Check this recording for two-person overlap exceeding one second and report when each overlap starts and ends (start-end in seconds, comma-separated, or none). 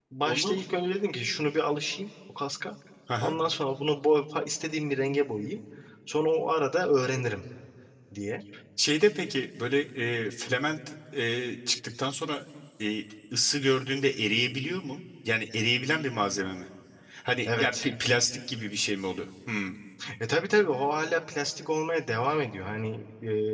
none